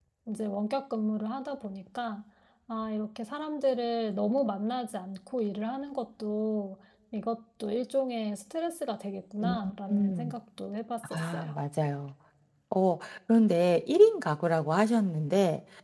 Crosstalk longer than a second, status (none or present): none